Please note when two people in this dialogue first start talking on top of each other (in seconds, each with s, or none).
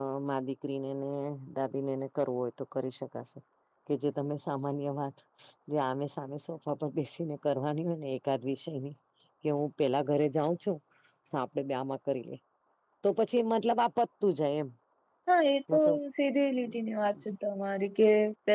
none